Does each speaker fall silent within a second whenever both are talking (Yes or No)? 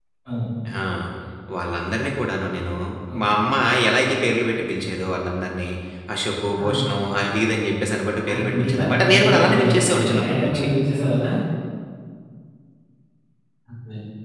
No